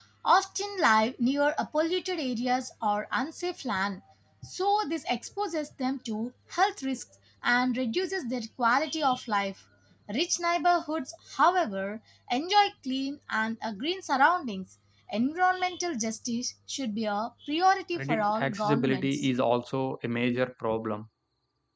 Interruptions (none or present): present